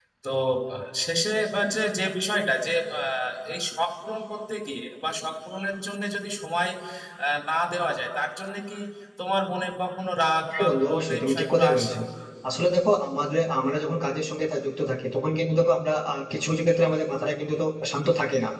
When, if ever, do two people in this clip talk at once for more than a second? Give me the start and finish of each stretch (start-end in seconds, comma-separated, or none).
10.6-12.0